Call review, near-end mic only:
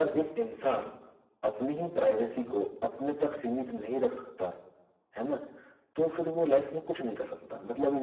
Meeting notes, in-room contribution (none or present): none